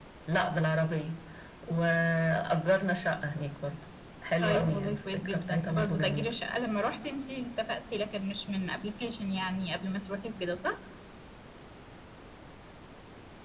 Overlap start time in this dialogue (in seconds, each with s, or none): 4.4 s